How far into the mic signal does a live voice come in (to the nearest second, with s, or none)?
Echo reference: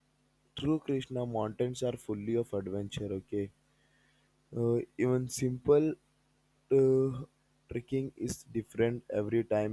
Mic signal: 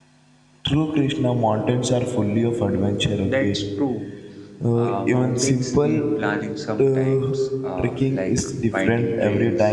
3 s